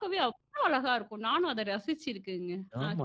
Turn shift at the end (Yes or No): Yes